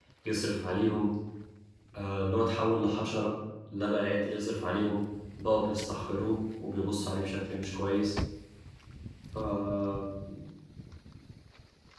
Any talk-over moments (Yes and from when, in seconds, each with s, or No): No